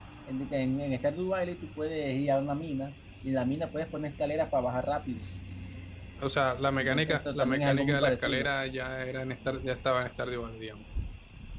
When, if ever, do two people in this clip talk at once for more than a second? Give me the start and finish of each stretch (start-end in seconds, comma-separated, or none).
6.8-8.5